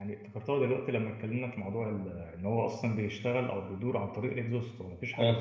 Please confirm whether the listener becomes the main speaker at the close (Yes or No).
Yes